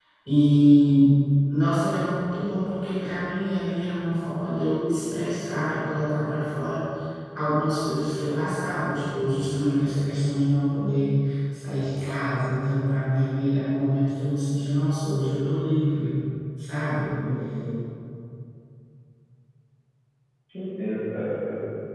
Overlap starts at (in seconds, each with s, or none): none